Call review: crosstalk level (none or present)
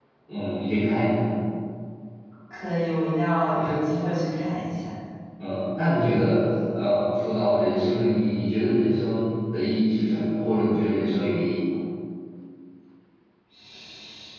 none